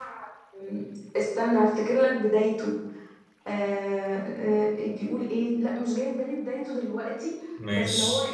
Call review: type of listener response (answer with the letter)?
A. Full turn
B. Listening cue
B